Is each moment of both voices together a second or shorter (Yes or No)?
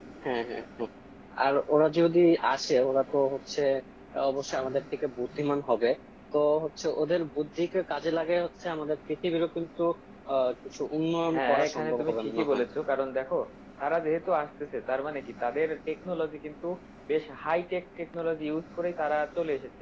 No